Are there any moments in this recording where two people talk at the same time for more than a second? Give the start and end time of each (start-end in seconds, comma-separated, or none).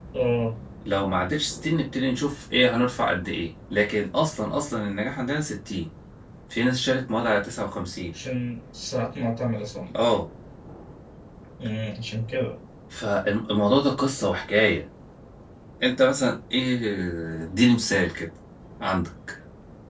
none